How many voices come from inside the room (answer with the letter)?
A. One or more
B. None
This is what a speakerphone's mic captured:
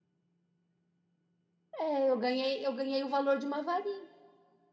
A